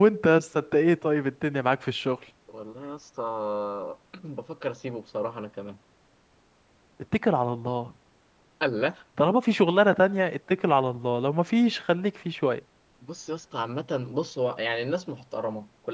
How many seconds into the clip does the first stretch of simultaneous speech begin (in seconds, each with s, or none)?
none